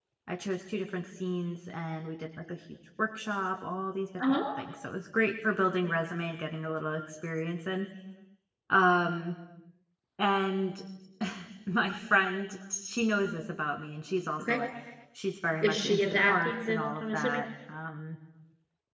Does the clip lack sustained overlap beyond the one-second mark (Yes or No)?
No